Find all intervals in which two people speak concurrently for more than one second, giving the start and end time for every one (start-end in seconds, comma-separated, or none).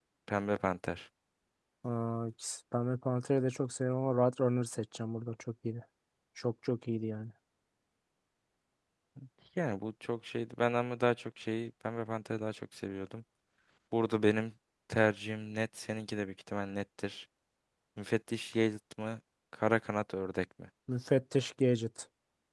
none